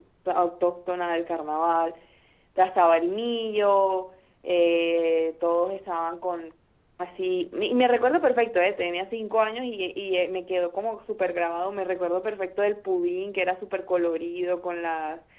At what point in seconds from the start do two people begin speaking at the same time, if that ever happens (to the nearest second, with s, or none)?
none